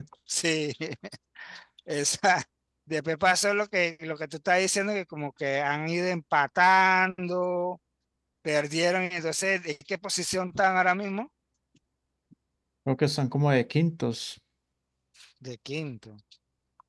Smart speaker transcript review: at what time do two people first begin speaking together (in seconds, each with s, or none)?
none